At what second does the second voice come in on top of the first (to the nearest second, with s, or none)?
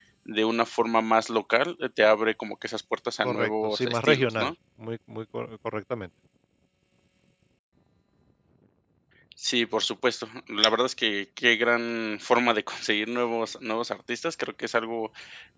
3 s